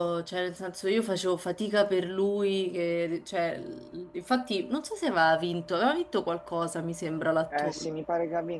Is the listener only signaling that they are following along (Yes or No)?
No